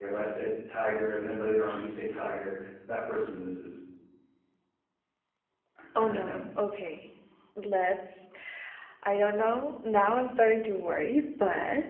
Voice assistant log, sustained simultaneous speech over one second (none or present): none